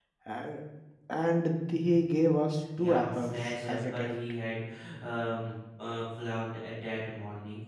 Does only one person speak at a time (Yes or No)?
No